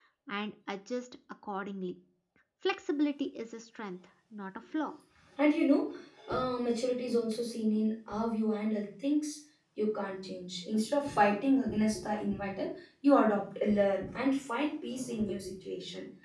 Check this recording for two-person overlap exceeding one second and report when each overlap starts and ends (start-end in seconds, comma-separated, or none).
none